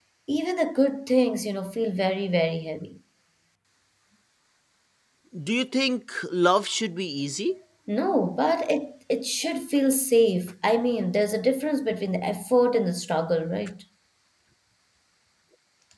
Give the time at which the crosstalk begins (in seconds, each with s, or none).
none